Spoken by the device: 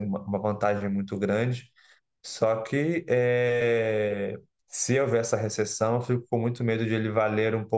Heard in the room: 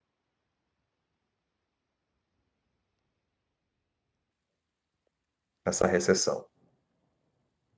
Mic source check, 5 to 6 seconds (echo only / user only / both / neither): user only